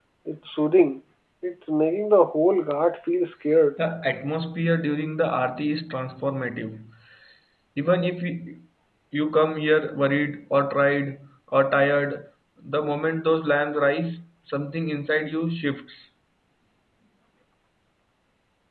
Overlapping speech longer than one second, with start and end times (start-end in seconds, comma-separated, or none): none